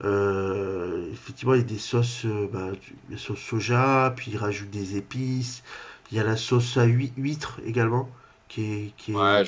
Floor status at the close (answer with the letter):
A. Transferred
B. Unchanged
A